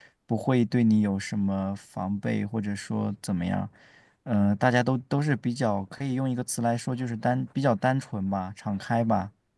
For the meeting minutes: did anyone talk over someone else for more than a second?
No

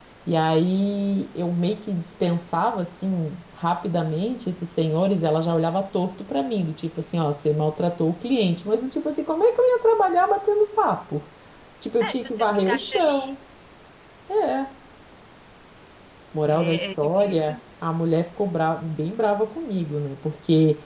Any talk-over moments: Yes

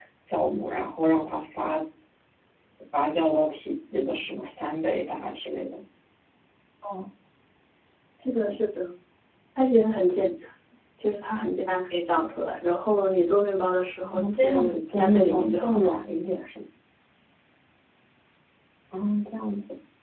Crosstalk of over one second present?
Yes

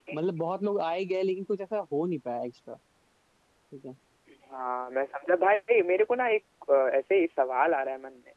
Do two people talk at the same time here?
No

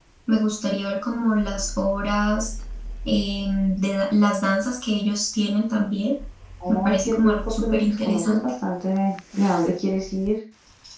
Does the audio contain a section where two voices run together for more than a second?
Yes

